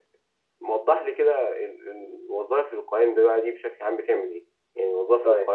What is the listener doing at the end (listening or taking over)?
listening